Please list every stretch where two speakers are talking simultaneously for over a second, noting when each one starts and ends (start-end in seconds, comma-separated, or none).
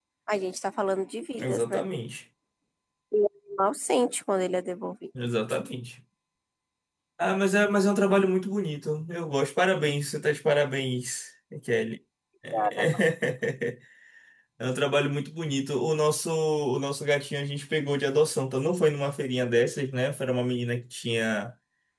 none